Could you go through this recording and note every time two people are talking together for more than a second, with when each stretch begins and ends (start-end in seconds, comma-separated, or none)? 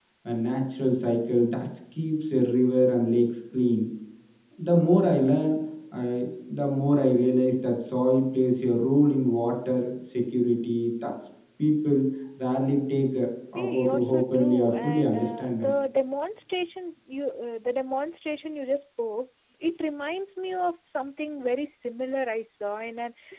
13.6-15.7